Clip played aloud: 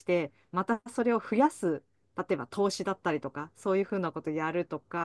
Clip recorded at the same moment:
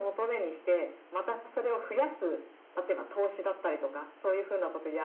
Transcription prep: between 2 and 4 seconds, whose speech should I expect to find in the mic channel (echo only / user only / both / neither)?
echo only